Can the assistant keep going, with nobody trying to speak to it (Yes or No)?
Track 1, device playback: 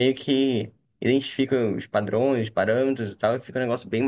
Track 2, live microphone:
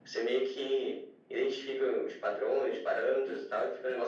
Yes